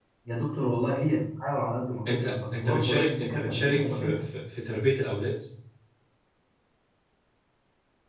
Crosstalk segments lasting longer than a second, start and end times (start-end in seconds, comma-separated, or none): 2.1-4.2